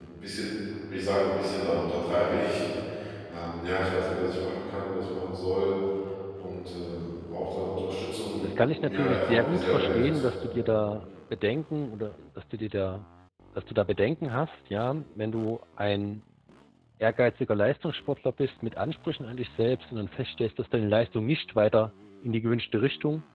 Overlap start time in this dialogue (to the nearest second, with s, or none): 8 s